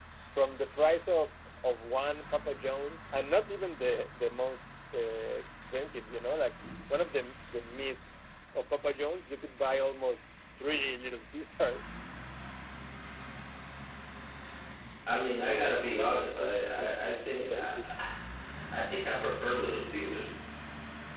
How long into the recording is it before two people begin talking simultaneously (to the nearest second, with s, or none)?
16 s